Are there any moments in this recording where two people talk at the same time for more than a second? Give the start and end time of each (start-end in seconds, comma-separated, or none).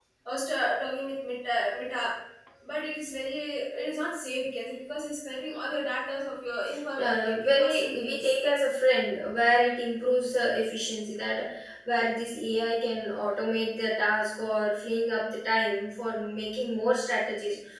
7.0-8.3